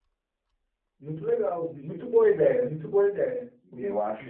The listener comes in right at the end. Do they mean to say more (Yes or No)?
Yes